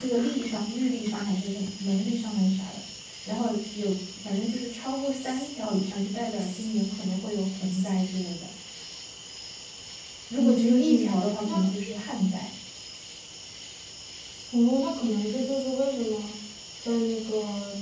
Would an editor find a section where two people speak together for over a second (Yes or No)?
Yes